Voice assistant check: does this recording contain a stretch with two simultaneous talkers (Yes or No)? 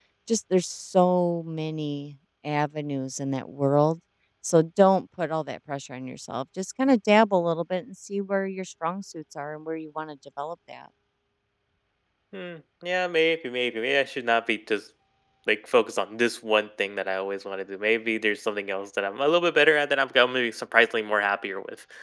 No